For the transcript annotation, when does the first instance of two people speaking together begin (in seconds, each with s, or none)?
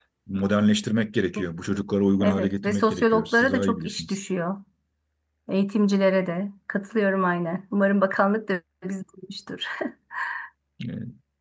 2.2 s